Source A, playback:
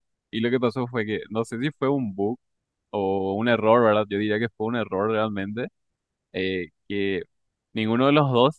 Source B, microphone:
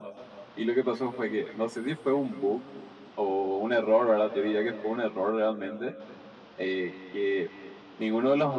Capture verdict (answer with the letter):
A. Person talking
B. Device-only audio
B